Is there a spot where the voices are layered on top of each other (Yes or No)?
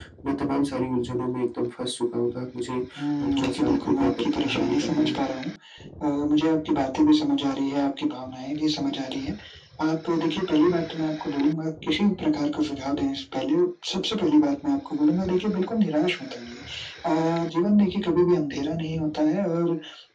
Yes